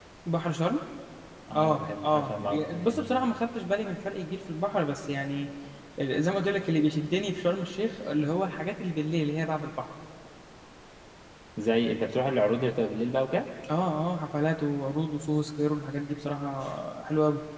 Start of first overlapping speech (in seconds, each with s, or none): 1.6 s